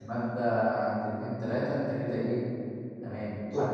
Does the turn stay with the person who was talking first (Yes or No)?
Yes